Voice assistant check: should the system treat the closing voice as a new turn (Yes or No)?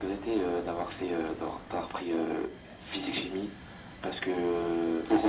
No